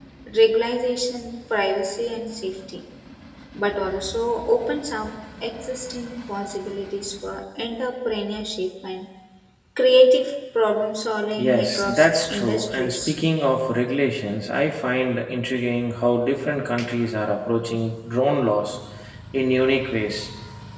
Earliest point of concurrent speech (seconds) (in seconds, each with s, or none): 11.4 s